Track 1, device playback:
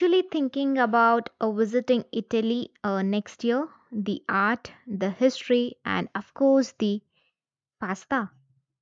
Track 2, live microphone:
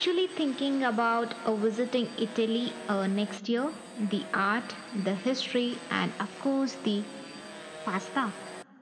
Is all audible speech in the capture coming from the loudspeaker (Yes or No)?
Yes